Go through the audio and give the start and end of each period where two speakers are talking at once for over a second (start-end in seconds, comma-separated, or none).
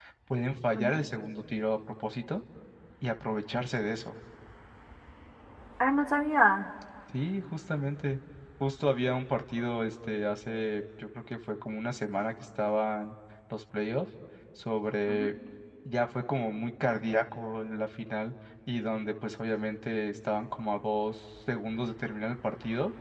none